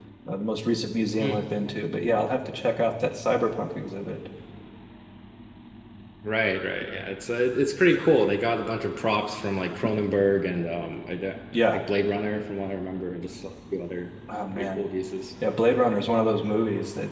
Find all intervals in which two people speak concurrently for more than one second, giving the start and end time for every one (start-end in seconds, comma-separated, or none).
none